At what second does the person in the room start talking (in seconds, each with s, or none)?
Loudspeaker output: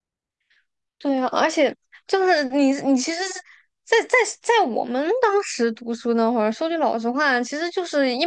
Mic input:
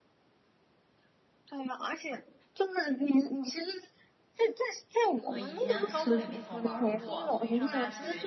5.3 s